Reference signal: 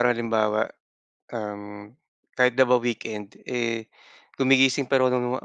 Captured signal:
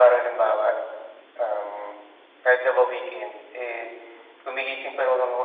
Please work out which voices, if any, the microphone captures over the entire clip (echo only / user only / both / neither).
echo only